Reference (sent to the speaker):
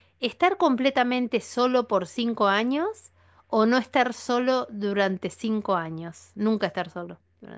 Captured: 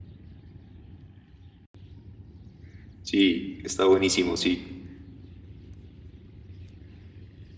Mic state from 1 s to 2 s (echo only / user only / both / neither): neither